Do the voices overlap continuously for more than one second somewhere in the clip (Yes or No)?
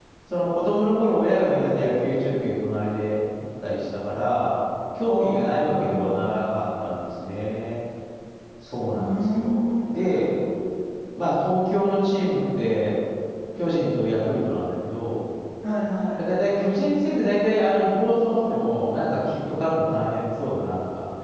Yes